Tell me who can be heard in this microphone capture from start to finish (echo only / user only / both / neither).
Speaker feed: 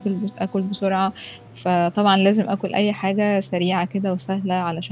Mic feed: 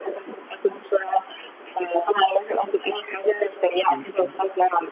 both